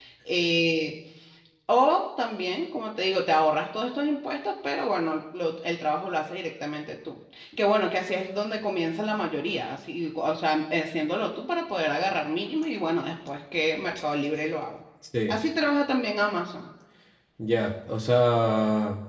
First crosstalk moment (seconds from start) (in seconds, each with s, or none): none